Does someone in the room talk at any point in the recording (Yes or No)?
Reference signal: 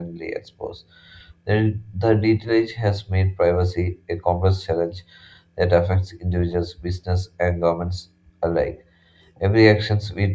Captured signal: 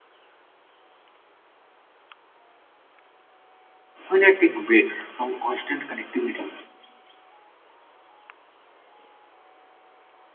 Yes